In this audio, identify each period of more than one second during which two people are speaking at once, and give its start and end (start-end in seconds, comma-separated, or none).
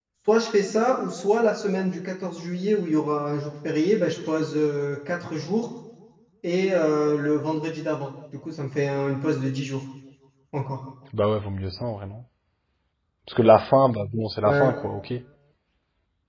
none